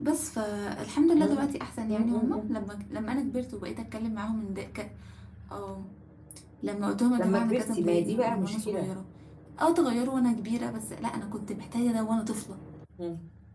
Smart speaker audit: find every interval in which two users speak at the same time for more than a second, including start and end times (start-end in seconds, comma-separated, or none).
7.2-8.9